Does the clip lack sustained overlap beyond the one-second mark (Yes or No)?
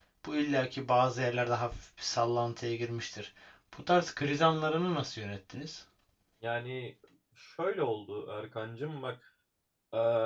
Yes